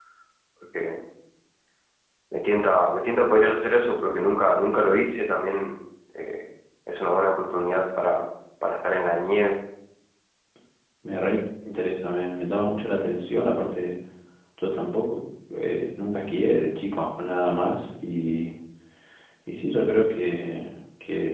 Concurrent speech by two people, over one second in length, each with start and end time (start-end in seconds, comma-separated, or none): none